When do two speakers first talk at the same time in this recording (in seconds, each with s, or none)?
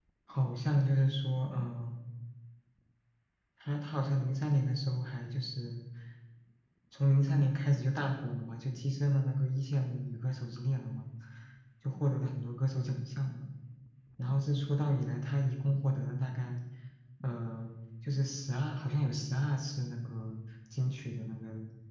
none